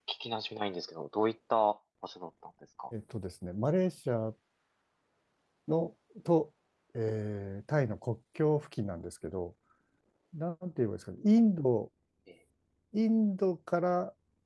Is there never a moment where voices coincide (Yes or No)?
Yes